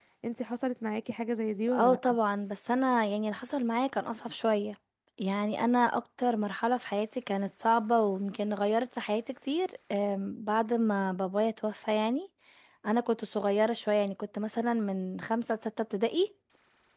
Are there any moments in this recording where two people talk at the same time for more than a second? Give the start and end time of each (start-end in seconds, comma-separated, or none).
none